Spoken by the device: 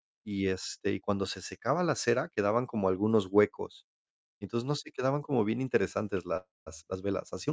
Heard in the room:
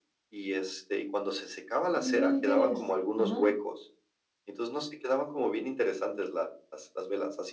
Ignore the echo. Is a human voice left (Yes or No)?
Yes